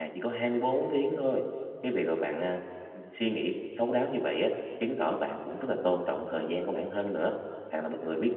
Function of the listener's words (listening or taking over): listening